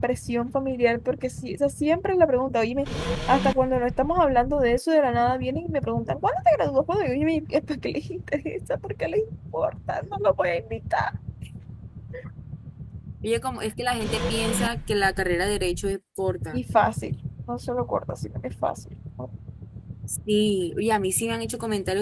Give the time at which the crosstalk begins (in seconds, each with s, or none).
none